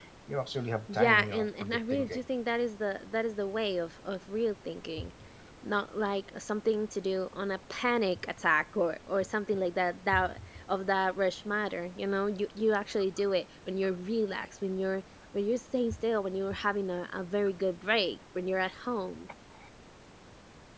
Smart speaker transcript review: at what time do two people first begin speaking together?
0.9 s

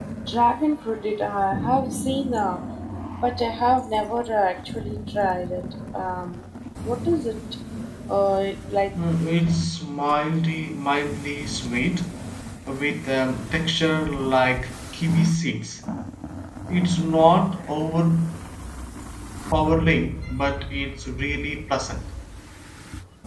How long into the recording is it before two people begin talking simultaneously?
none

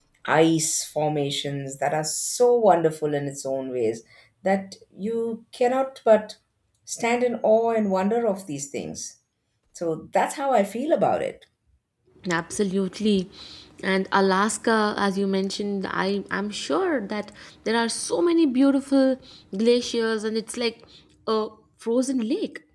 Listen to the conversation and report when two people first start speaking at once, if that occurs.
none

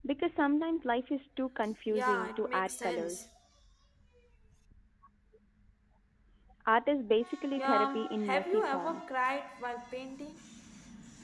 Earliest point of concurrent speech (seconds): 1.9 s

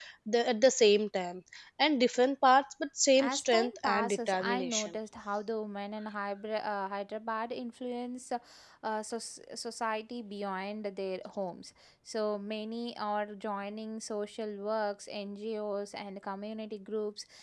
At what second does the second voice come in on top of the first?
3.2 s

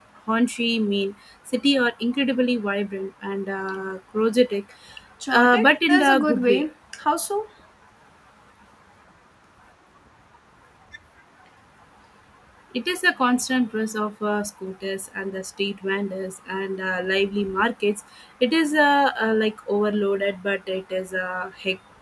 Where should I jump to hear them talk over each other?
5.3 s

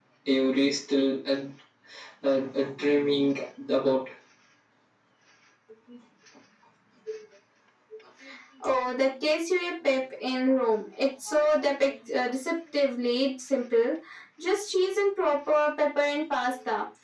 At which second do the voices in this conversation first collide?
none

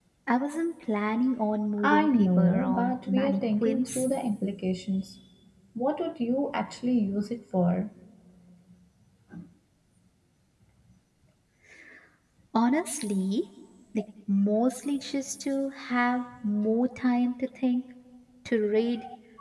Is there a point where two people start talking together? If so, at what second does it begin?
1.8 s

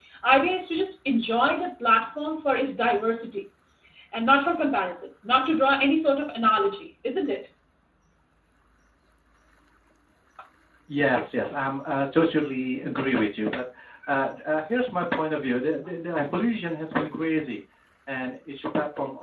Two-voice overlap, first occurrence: none

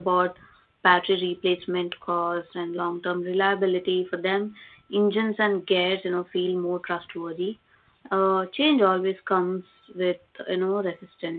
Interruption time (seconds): none

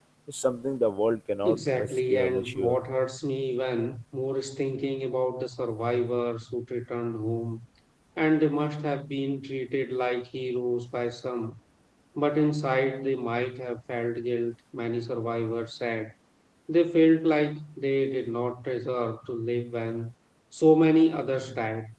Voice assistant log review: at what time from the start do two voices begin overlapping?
1.4 s

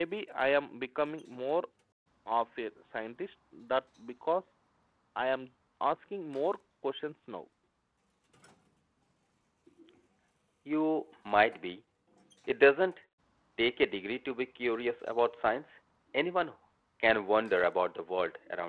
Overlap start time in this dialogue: none

